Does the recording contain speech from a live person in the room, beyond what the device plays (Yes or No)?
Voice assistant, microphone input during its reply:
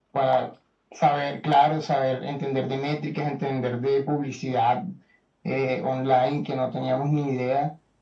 No